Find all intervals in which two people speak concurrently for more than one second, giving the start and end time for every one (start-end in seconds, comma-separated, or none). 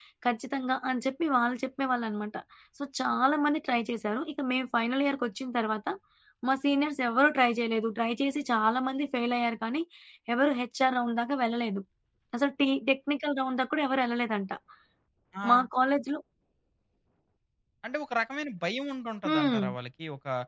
none